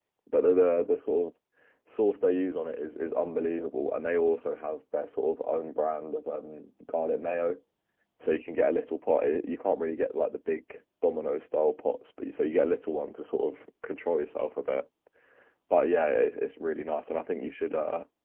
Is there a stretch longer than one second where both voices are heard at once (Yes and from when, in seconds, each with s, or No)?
No